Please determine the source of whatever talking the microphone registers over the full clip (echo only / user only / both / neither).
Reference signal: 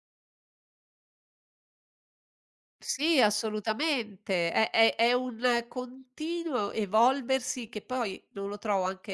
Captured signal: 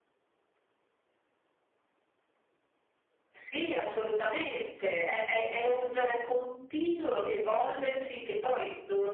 echo only